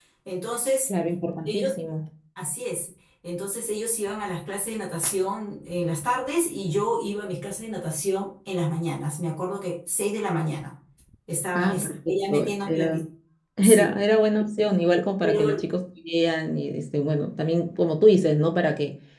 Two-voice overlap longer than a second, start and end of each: 11.6-13.0

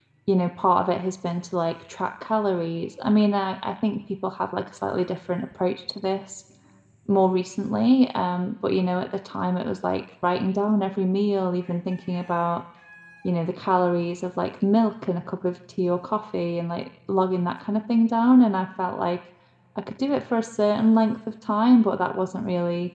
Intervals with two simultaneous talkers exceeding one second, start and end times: none

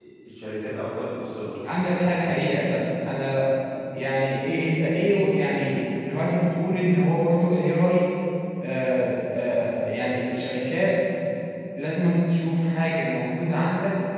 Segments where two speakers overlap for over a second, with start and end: none

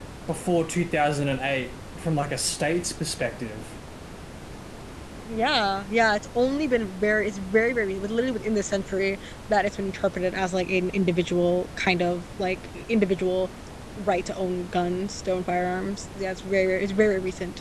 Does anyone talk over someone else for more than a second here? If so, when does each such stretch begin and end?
none

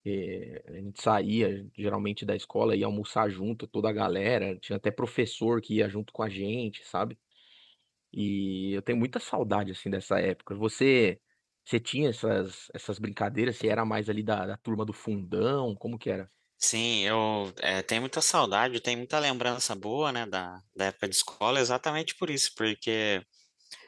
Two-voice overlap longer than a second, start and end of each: none

